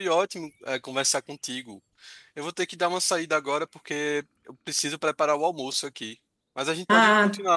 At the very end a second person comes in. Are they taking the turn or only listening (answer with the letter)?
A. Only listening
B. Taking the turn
A